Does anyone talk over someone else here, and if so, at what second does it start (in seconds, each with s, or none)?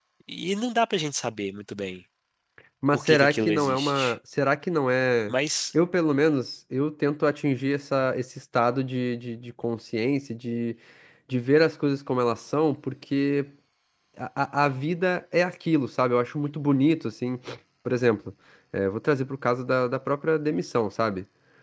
2.9 s